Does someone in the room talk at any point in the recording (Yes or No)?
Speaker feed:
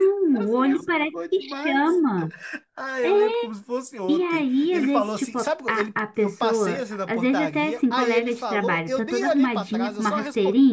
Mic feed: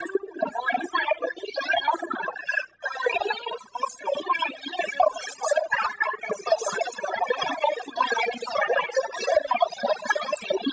No